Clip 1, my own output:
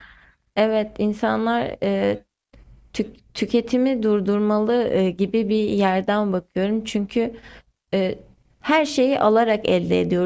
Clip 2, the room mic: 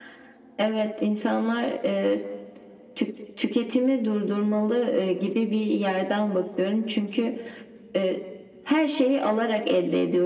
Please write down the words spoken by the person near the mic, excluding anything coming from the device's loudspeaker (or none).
none